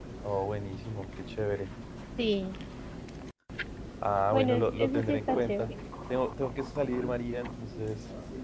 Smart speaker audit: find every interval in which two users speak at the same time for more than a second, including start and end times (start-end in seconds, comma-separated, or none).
4.3-5.7